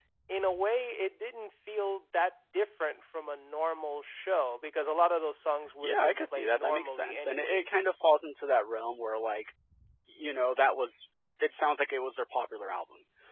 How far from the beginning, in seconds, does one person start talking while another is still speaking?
5.8 s

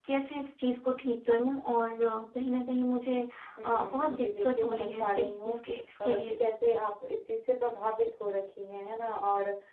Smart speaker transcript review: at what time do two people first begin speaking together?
3.6 s

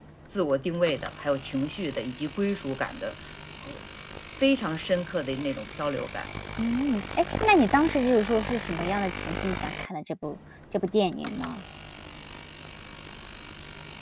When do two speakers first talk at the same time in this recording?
none

